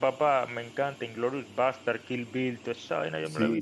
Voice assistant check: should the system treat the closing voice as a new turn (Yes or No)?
Yes